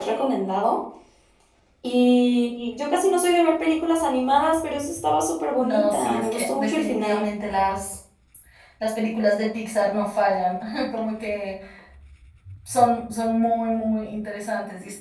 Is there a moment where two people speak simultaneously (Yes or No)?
Yes